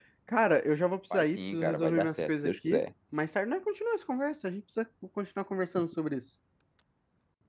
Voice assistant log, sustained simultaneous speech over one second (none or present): present